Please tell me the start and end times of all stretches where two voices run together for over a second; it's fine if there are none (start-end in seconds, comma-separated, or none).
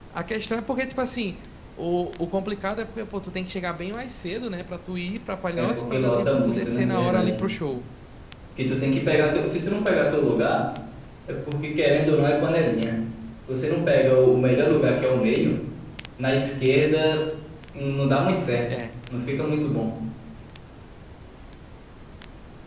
5.6-7.4